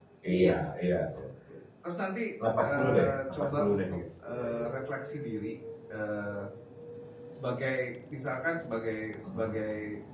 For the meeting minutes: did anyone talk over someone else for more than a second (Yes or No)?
Yes